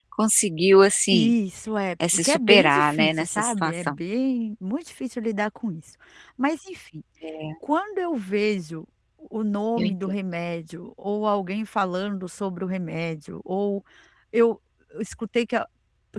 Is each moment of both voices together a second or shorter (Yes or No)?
No